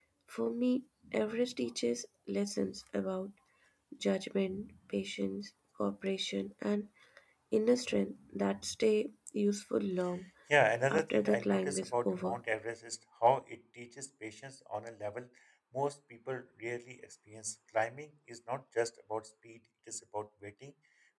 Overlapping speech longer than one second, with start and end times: 10.9-12.4

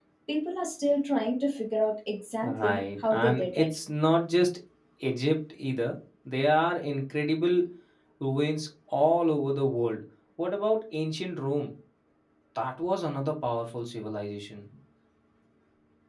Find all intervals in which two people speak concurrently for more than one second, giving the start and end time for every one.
2.4-3.7

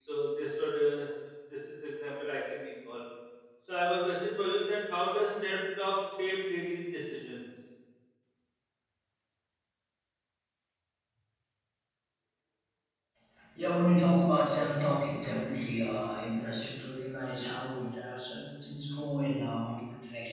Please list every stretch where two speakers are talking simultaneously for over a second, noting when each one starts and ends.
none

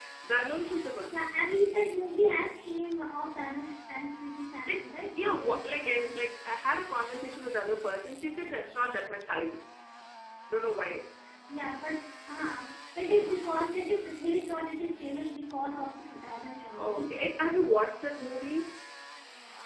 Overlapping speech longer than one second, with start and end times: 4.7-6.2

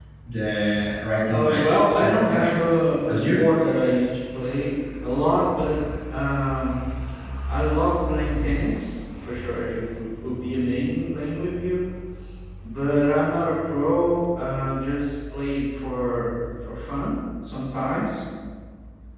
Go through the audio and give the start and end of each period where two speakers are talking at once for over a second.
1.3-2.7

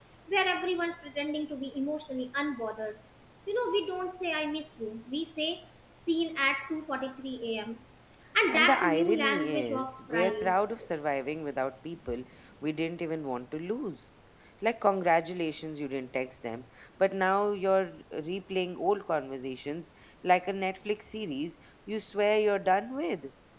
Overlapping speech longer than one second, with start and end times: 8.5-10.6

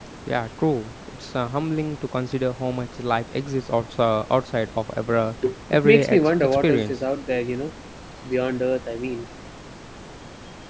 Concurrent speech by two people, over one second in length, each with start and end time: 5.7-6.9

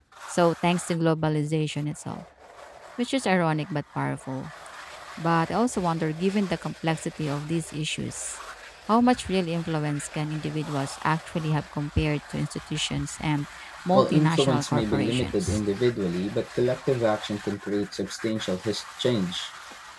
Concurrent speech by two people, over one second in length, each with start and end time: 13.9-15.6

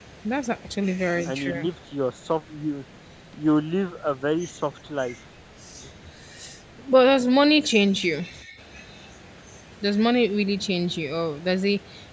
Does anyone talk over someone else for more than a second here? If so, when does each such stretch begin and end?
none

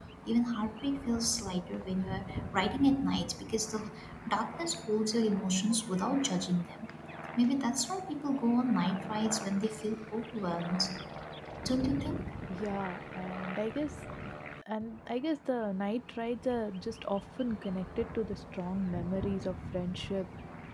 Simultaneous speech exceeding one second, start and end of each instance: none

